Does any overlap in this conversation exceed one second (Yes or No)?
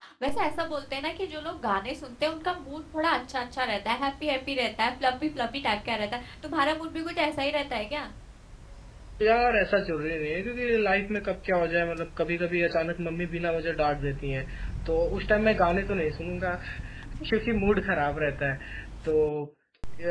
No